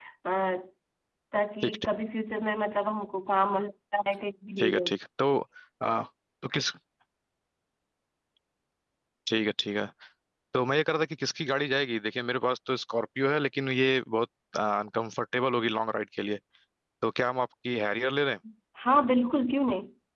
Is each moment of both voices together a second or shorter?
Yes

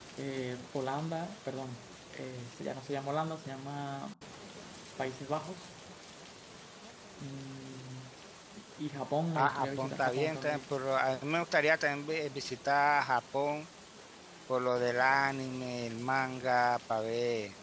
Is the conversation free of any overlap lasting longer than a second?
No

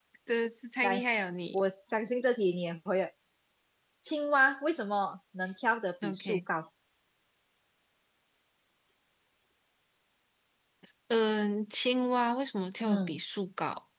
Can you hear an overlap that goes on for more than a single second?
No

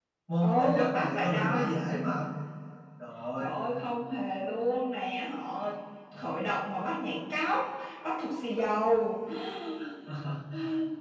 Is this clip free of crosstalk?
No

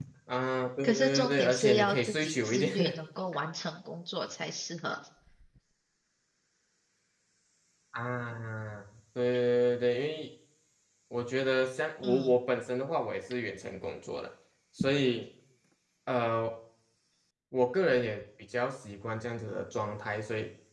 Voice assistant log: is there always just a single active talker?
No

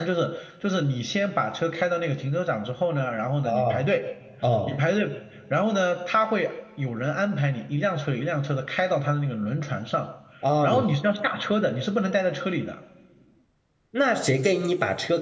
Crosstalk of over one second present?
No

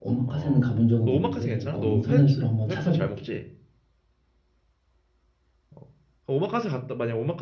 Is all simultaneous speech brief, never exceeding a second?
No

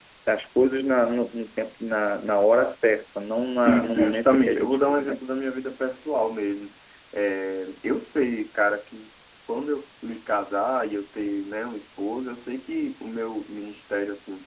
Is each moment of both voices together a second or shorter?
No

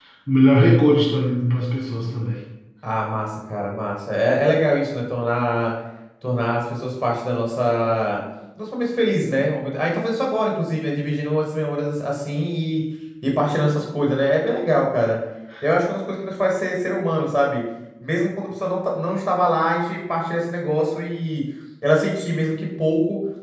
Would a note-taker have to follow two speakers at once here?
No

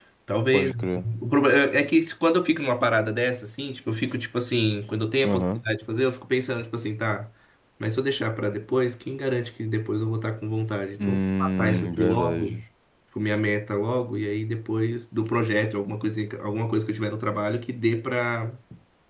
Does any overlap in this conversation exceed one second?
Yes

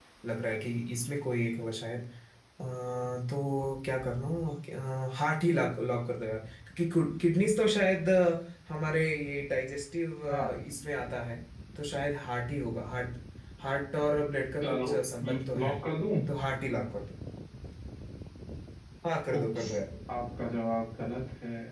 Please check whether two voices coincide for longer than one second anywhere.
No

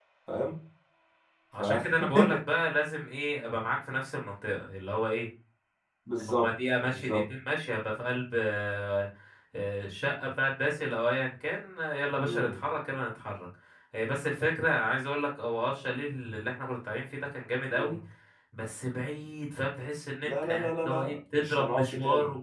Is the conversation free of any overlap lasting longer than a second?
No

